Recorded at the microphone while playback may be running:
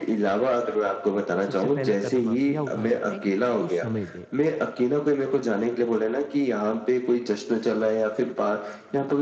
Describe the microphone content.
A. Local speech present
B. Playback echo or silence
A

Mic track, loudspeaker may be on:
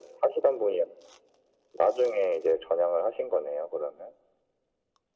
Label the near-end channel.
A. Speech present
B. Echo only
B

